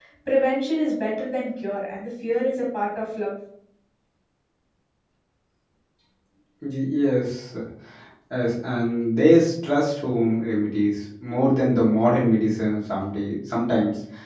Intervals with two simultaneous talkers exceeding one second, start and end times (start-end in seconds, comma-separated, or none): none